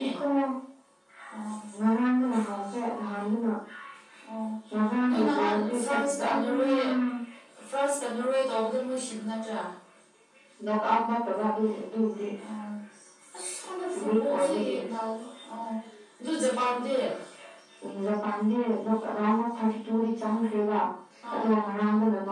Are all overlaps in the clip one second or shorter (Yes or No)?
No